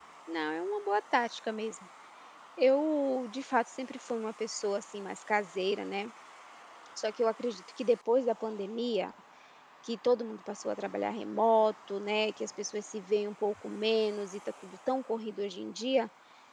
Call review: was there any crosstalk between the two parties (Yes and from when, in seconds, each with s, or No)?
No